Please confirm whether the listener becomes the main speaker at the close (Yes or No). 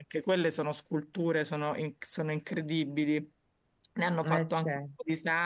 No